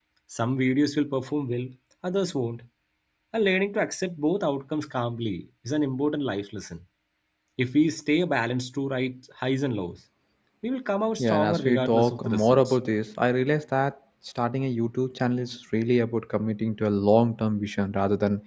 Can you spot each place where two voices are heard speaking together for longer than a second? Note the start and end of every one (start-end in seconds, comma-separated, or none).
11.2-12.8